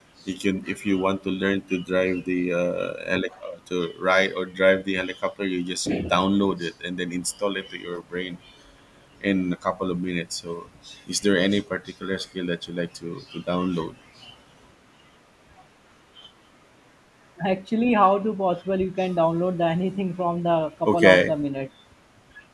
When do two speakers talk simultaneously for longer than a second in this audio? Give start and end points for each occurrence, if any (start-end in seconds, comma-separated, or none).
none